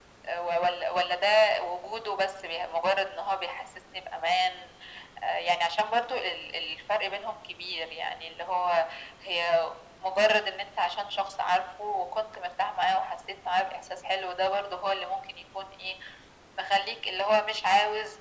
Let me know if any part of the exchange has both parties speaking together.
No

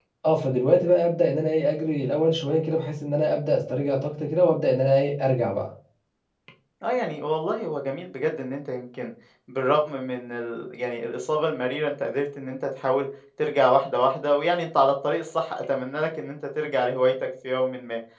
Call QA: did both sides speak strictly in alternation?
Yes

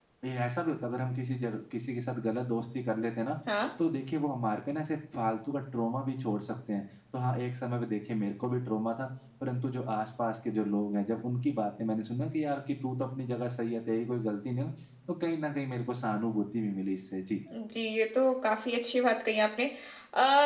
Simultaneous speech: No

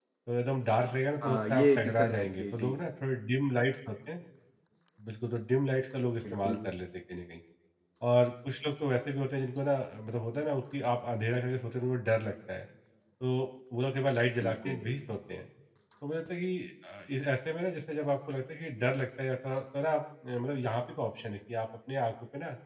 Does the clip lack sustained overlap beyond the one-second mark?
No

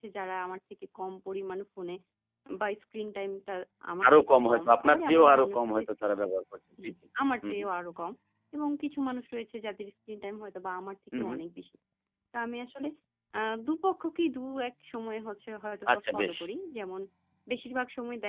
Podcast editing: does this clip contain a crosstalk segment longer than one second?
Yes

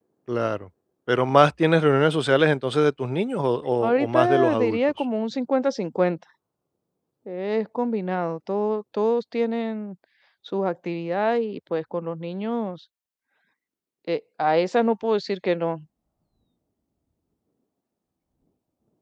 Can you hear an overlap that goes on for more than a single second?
Yes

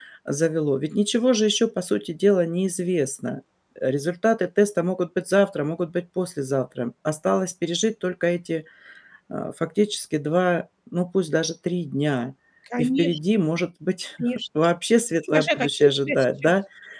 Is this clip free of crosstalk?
No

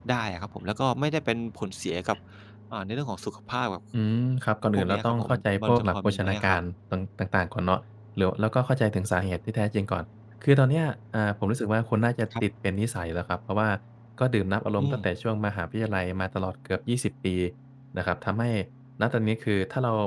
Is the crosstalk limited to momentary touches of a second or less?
No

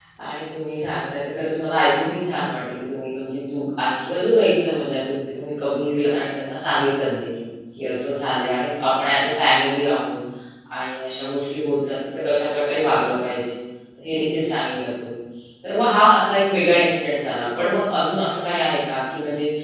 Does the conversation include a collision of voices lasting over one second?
No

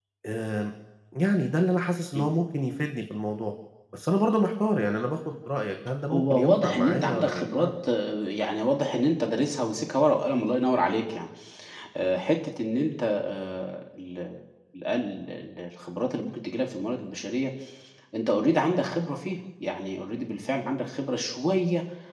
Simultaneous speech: Yes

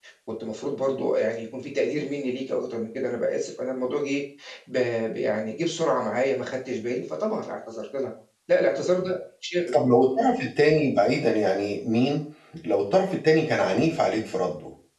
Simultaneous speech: No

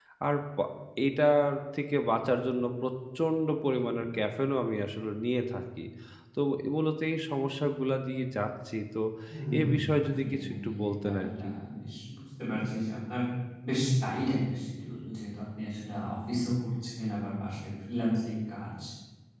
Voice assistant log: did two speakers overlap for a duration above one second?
Yes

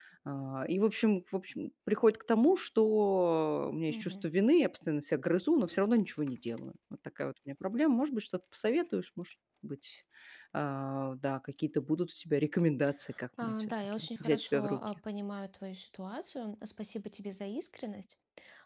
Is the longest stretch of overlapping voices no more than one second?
No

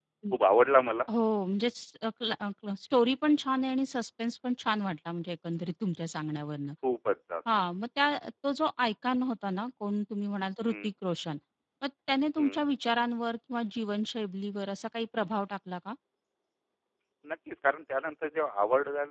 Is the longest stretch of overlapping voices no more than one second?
Yes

